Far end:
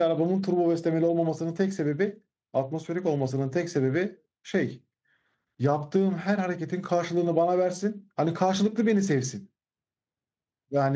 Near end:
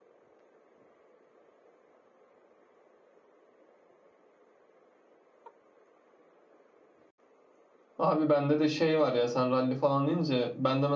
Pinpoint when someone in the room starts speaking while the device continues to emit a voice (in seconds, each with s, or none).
8.0 s